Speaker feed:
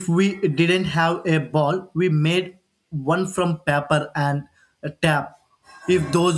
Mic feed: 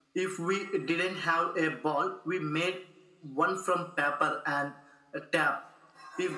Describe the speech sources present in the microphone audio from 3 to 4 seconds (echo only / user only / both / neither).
echo only